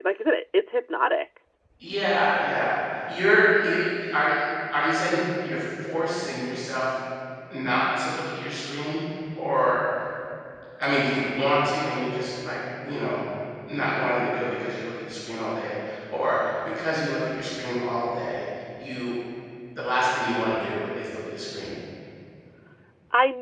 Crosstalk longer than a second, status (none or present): none